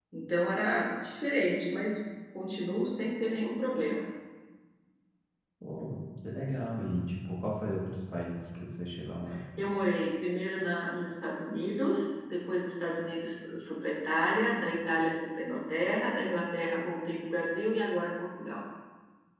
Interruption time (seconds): none

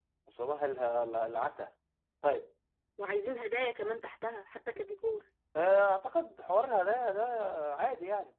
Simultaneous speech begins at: none

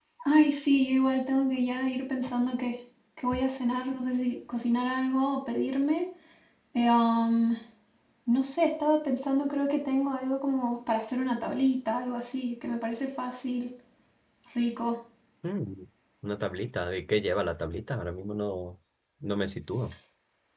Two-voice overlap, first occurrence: none

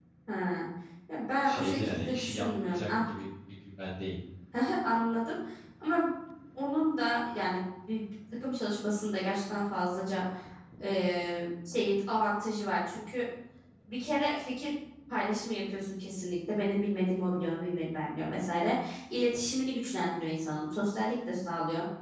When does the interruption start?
1.4 s

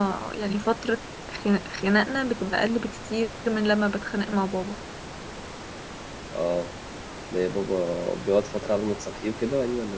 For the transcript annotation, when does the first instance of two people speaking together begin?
none

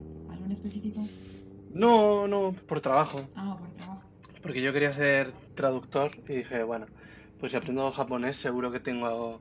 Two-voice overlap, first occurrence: none

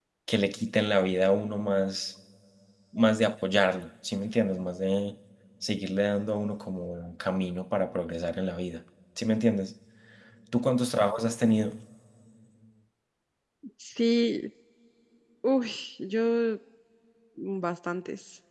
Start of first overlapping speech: none

